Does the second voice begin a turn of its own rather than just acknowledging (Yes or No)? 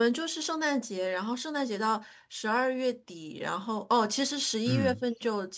No